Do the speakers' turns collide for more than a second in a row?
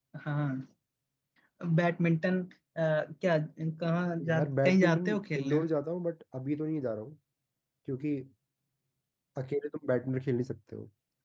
Yes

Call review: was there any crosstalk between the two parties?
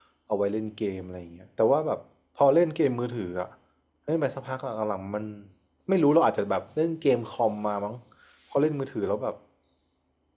No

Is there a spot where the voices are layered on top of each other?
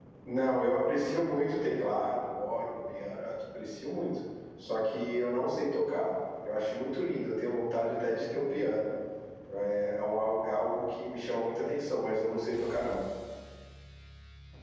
No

